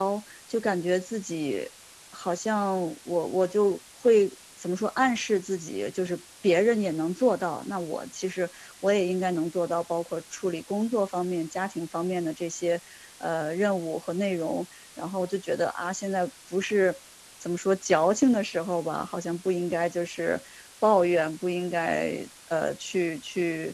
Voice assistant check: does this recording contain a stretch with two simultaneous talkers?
No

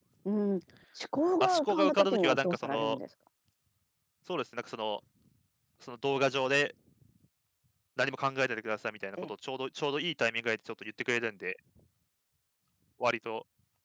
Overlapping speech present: Yes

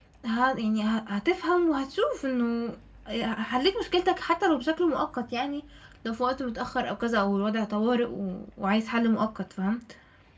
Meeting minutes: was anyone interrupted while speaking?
No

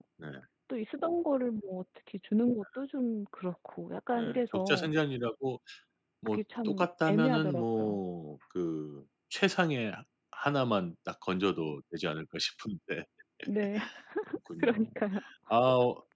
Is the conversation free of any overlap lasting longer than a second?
No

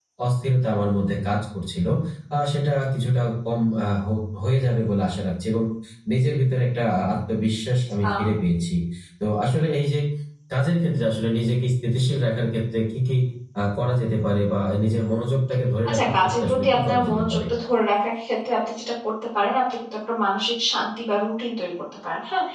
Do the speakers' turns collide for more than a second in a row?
Yes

